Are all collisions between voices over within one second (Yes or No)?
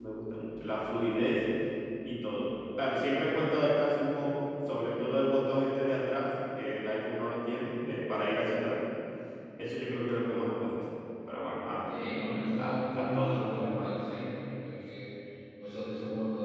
No